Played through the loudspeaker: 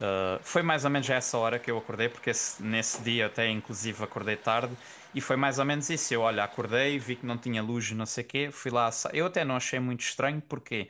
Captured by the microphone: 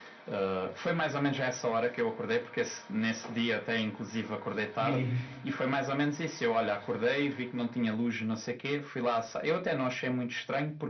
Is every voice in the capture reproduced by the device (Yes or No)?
No